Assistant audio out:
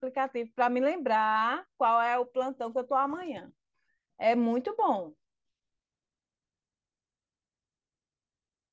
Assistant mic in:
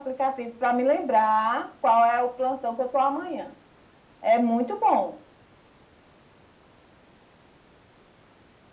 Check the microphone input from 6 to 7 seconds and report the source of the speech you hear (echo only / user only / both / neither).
neither